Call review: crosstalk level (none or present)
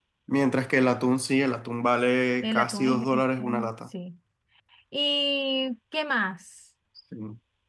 present